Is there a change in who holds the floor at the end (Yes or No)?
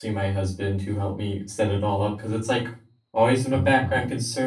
No